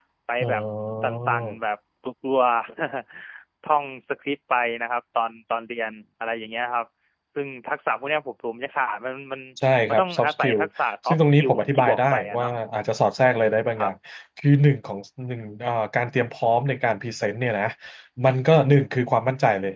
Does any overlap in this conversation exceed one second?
Yes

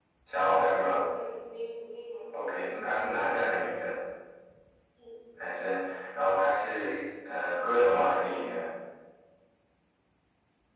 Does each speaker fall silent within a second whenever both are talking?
Yes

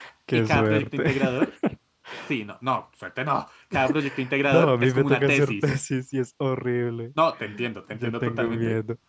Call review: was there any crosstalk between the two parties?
Yes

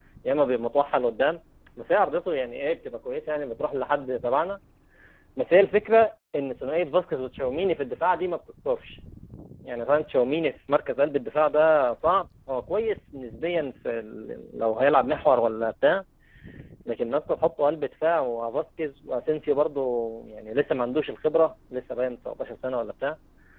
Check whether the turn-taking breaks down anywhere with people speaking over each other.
No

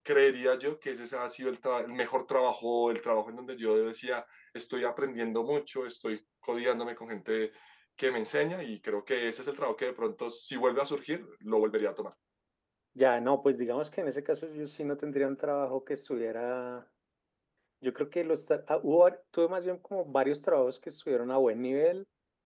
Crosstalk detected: No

